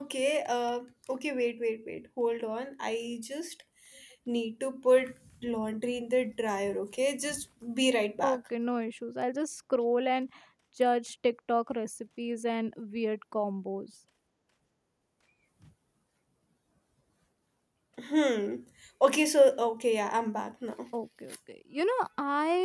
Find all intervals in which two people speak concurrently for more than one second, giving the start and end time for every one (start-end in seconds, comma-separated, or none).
none